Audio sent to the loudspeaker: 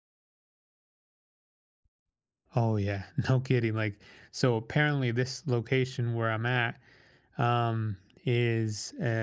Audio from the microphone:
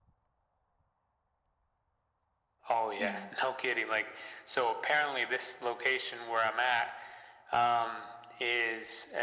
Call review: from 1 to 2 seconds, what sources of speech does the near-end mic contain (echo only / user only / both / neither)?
neither